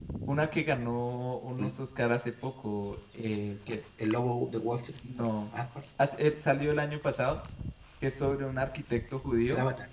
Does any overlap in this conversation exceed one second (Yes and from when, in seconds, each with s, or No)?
No